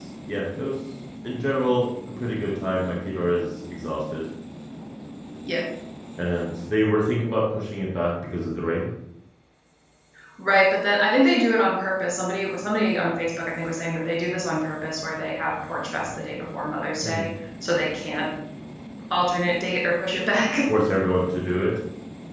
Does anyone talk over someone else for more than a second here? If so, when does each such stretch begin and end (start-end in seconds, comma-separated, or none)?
none